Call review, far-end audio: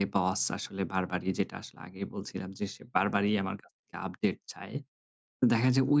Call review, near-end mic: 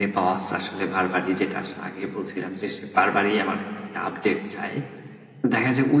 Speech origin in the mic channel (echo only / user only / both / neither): echo only